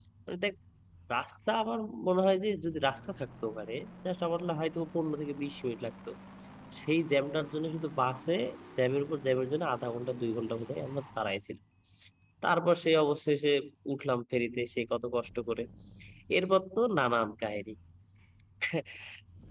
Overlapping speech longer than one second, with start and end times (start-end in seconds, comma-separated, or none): none